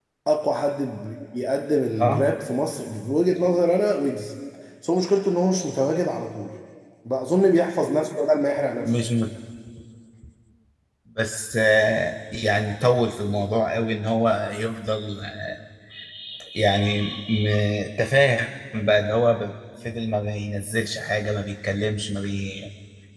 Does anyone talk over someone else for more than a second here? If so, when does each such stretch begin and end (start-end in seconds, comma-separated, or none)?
none